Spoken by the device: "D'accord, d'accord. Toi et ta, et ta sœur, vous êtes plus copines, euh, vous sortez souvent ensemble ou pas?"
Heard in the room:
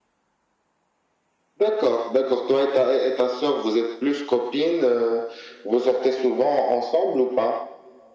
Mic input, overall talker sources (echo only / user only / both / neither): echo only